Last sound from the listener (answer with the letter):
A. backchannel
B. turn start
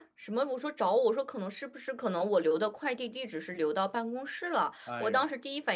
A